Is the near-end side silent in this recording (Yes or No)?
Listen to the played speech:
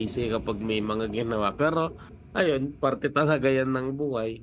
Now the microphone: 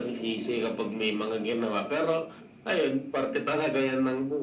Yes